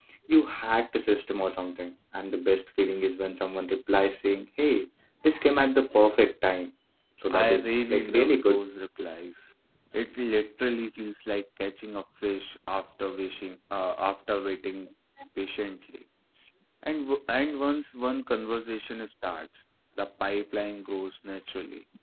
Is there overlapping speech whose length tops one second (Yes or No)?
Yes